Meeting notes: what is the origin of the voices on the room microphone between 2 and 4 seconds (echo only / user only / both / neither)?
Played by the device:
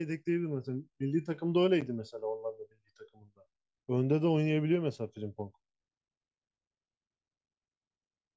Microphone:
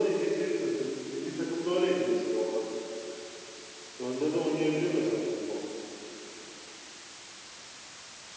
echo only